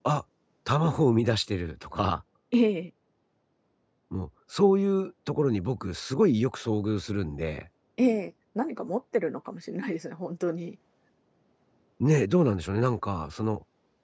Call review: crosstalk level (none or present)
none